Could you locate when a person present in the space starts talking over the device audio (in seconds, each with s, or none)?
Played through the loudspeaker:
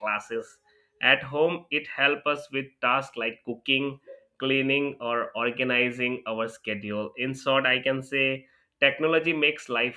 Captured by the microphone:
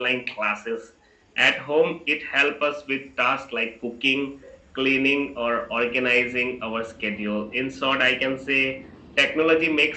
none